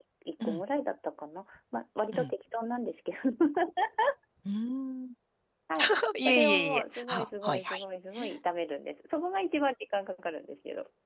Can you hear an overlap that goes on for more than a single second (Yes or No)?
Yes